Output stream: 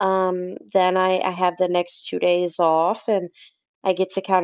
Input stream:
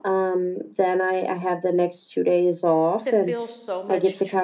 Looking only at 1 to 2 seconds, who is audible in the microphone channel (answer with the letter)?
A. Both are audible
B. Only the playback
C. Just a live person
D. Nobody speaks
B